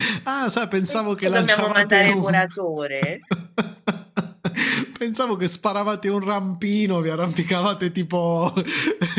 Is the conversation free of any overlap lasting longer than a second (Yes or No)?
No